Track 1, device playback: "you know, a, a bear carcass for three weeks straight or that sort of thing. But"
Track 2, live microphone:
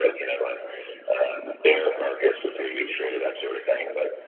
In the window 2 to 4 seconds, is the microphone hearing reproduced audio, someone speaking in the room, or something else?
echo only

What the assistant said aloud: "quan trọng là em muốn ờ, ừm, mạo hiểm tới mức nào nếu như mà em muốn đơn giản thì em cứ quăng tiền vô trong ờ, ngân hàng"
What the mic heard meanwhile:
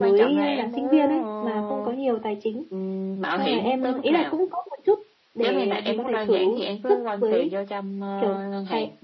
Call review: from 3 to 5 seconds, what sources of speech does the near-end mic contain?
both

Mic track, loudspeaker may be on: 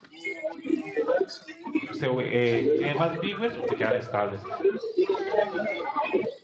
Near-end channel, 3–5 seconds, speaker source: both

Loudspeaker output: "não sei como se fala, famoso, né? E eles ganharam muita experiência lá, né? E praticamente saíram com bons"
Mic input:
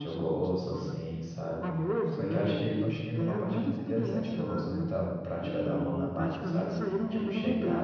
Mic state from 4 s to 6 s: both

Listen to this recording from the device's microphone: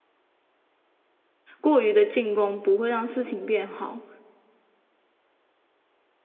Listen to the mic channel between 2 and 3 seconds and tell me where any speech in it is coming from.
user only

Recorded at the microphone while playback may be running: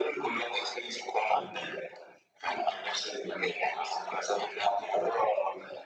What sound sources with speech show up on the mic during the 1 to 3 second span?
echo only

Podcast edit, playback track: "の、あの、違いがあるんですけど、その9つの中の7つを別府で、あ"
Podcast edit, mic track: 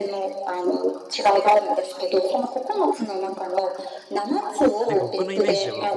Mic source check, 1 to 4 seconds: echo only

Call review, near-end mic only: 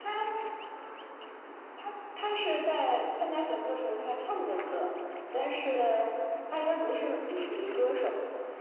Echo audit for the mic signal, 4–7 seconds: echo only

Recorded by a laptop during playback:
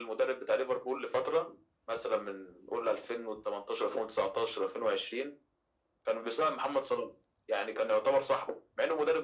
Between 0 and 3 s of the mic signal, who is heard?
echo only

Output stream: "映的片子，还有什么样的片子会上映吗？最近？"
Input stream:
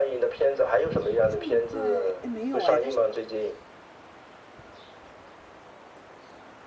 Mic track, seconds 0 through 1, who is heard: echo only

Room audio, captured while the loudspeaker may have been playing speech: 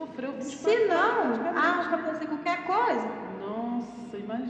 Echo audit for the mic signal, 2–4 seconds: echo only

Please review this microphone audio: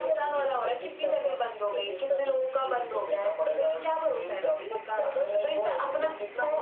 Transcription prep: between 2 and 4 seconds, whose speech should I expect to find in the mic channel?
echo only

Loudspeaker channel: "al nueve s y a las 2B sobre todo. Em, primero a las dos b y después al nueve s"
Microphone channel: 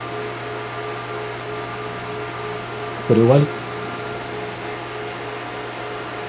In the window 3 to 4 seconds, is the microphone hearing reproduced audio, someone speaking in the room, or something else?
user only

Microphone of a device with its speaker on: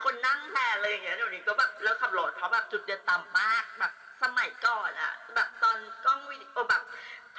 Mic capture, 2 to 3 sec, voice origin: echo only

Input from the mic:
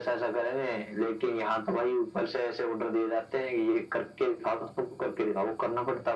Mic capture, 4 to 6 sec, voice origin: echo only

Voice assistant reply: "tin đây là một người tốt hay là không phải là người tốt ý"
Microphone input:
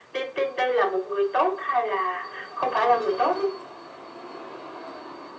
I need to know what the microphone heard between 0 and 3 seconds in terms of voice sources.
echo only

